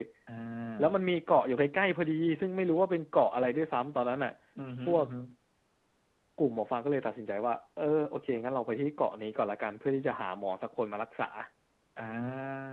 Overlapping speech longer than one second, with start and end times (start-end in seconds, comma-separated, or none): none